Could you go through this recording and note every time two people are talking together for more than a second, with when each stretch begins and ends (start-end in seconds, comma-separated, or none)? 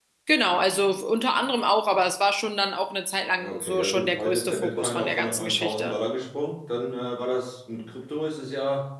3.4-6.0